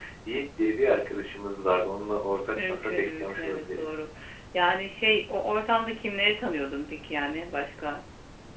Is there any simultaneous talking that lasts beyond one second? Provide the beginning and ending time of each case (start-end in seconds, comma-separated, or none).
2.7-3.9